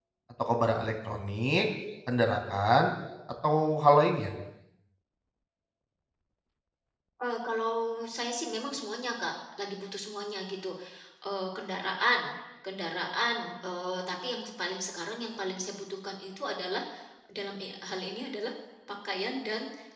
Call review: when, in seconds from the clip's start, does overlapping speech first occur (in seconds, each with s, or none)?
none